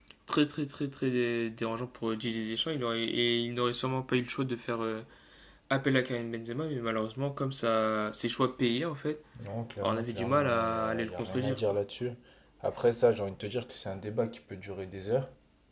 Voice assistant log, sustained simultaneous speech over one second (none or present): present